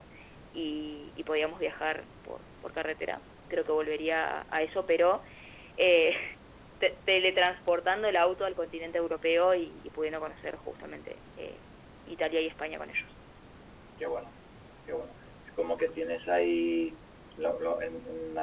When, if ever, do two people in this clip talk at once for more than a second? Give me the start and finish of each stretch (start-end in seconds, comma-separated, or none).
none